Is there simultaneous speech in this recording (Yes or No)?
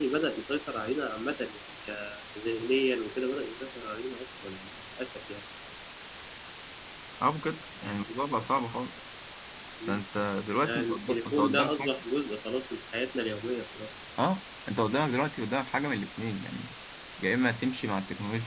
Yes